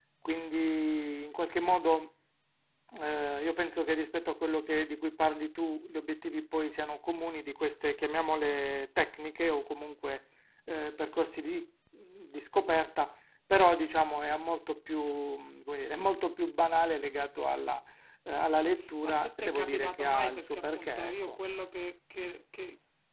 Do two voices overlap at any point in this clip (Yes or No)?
Yes